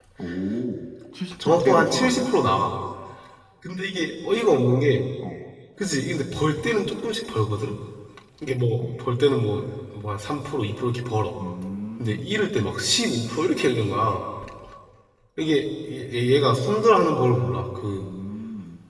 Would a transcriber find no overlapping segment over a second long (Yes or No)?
No